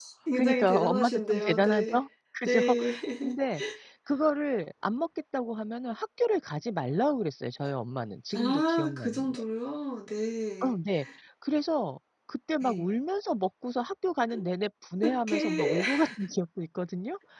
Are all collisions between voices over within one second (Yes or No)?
No